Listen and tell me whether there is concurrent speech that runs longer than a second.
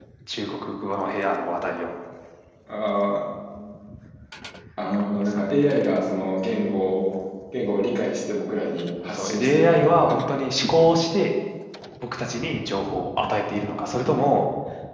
Yes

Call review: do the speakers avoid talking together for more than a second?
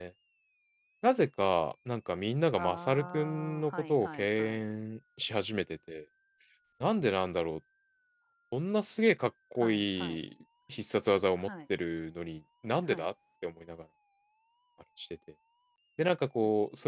No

